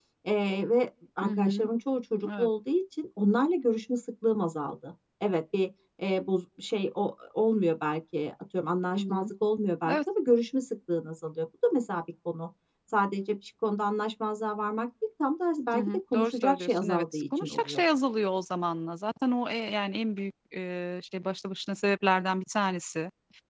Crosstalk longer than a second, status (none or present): present